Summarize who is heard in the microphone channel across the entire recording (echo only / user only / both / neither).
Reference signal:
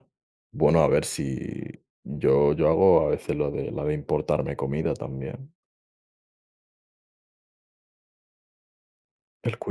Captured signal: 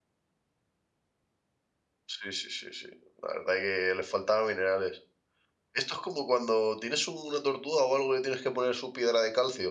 user only